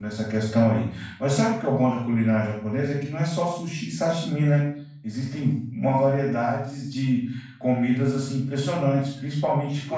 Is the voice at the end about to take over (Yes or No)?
No